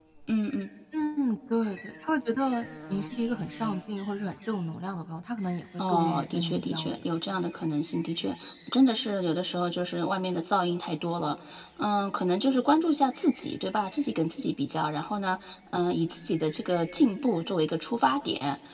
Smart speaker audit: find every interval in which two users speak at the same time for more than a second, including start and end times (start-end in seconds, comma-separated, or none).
5.8-7.1